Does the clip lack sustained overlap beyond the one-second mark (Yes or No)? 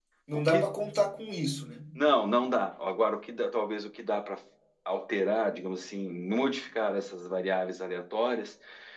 Yes